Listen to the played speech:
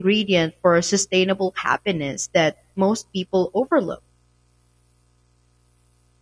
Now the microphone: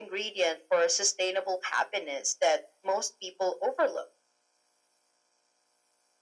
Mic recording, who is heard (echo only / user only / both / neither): echo only